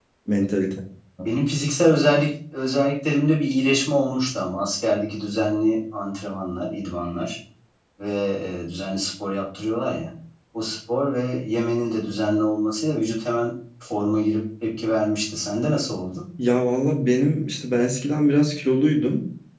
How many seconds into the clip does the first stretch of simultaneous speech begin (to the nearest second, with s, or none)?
none